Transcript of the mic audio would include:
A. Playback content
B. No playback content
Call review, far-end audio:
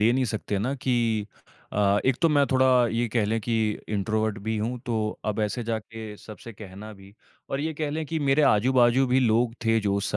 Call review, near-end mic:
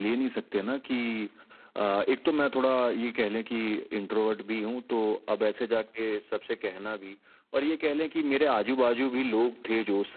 A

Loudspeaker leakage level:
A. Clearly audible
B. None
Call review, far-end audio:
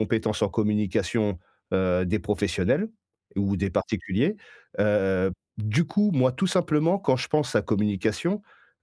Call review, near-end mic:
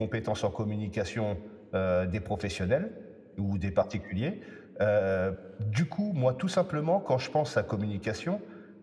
A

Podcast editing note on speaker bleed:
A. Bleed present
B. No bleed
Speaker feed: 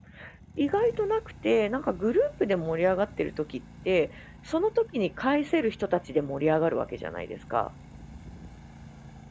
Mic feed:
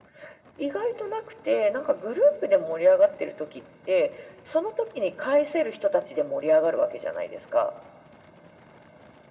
A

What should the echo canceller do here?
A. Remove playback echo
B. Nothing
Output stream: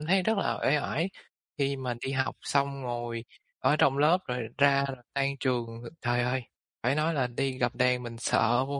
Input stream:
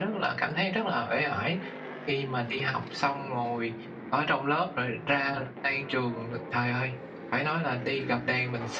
A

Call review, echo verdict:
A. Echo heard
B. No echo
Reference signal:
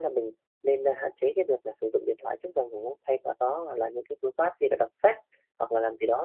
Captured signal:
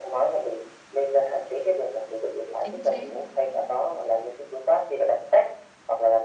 A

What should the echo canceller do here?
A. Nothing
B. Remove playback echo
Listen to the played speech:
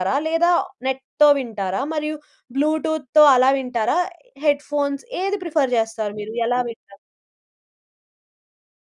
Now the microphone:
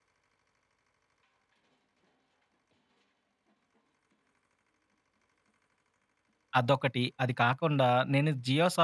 A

